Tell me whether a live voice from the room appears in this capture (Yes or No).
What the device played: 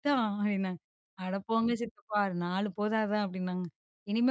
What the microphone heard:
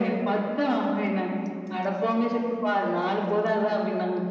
No